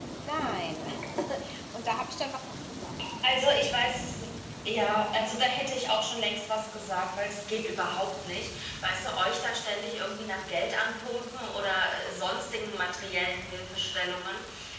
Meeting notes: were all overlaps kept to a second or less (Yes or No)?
Yes